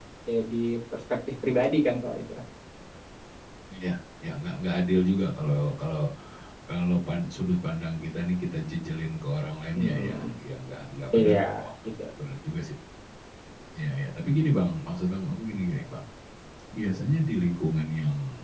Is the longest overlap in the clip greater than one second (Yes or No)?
No